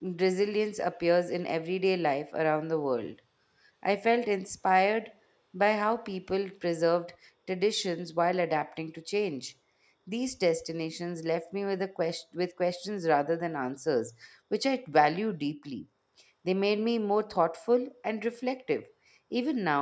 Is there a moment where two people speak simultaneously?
No

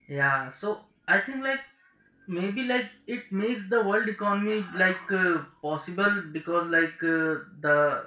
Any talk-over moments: No

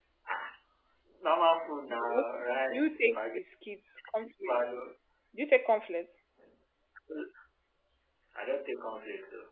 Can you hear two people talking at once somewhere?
Yes, from 2.1 s

